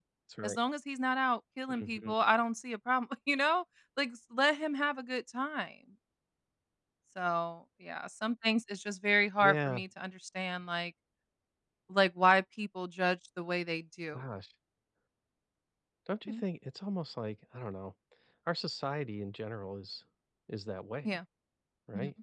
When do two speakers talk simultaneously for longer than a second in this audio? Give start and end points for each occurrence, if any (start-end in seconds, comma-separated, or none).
none